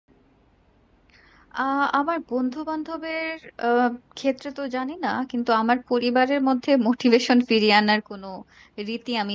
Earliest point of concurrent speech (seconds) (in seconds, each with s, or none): none